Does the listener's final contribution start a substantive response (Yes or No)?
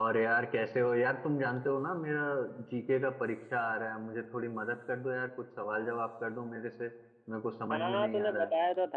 Yes